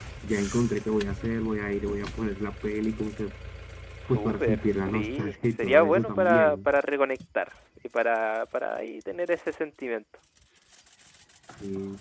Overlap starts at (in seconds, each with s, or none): 4.1 s